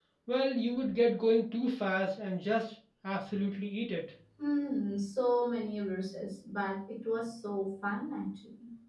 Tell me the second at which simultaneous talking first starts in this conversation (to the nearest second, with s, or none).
none